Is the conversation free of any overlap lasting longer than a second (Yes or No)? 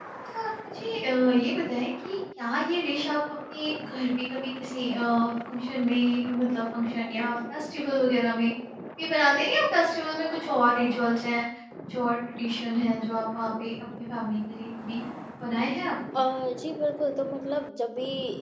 Yes